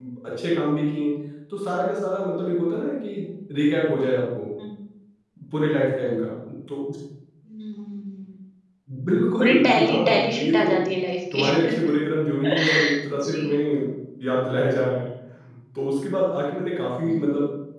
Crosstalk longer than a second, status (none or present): present